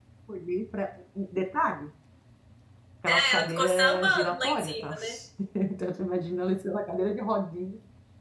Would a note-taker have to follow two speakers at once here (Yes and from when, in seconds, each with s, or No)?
Yes, from 3.1 s